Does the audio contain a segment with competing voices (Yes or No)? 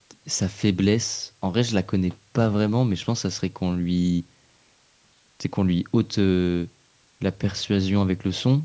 No